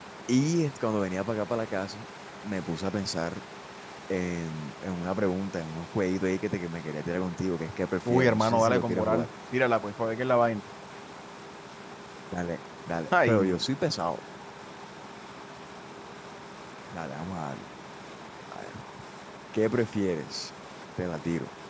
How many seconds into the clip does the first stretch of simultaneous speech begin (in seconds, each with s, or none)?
8.0 s